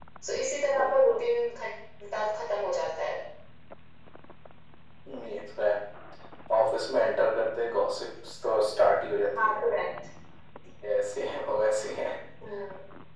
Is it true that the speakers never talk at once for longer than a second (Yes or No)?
Yes